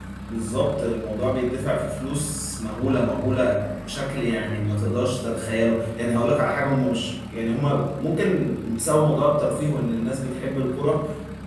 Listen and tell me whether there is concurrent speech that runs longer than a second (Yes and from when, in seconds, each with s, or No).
No